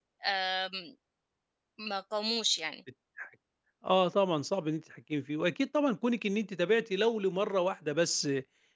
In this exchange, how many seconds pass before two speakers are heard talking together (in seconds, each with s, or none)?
none